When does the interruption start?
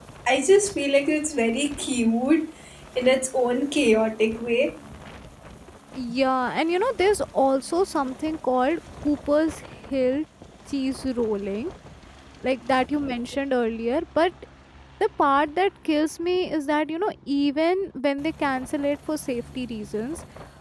none

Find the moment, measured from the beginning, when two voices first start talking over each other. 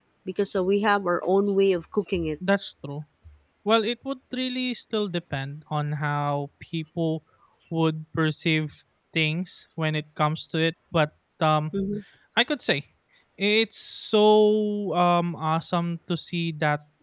none

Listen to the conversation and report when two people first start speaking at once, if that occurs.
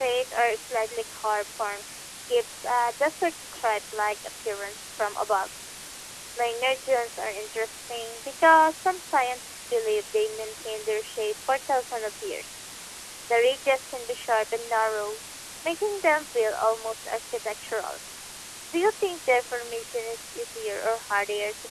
none

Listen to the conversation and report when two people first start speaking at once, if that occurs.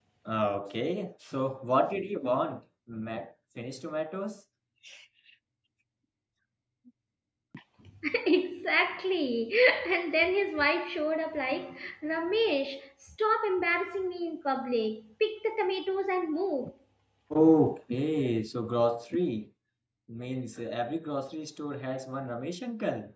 none

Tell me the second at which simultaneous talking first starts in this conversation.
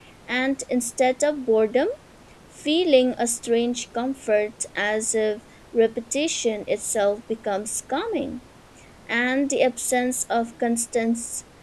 none

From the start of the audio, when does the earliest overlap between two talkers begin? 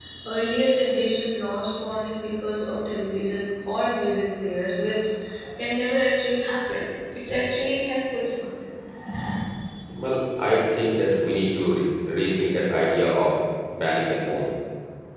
none

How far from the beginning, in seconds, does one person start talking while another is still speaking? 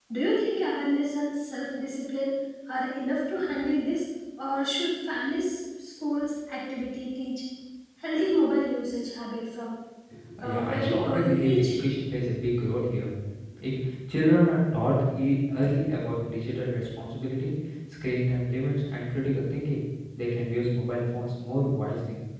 10.4 s

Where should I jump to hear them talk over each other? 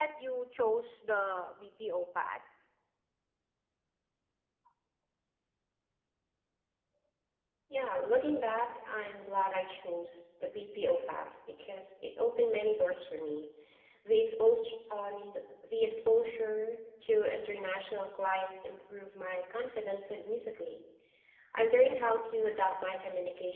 none

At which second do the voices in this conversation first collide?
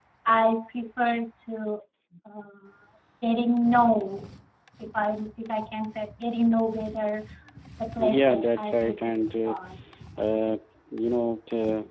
8.0 s

